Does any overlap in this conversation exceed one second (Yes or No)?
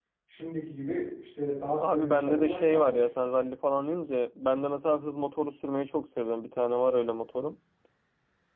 Yes